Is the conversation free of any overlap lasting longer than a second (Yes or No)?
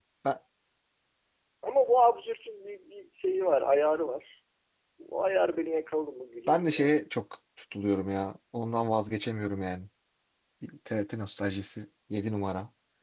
Yes